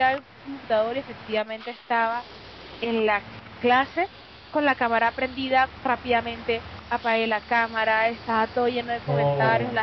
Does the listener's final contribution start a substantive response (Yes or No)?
No